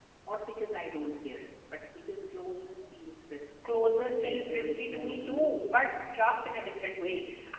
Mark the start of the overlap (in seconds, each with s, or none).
4.2 s